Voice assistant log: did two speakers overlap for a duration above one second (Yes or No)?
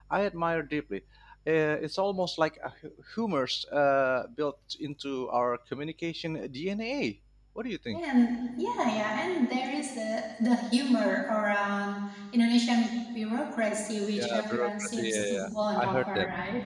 Yes